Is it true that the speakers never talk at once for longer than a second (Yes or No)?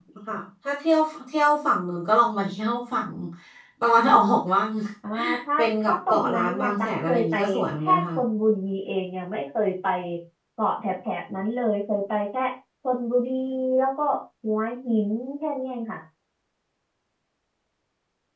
No